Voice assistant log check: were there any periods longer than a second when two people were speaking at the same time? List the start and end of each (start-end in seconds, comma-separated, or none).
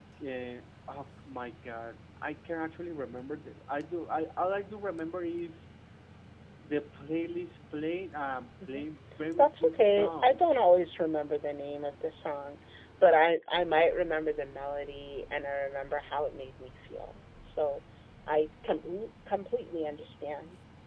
9.4-10.6